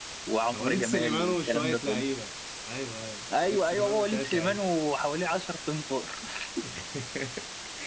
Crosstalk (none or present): present